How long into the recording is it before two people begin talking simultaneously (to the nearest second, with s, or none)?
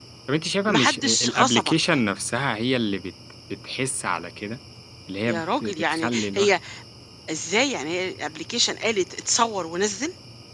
1 s